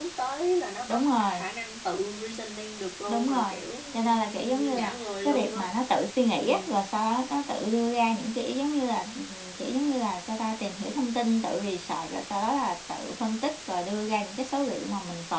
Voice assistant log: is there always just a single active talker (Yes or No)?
No